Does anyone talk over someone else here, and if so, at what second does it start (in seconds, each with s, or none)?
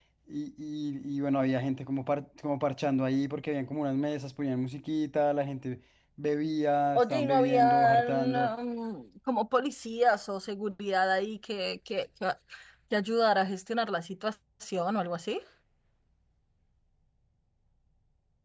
7.0 s